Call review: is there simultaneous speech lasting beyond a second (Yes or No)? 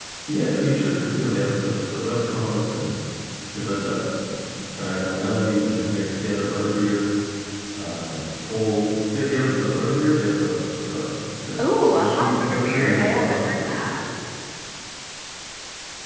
Yes